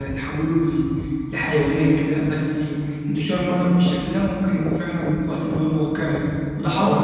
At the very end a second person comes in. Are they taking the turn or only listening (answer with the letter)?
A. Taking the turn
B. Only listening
A